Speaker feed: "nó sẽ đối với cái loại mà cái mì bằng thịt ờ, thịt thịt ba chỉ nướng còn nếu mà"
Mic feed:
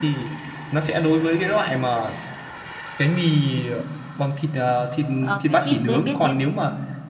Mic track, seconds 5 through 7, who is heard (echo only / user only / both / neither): both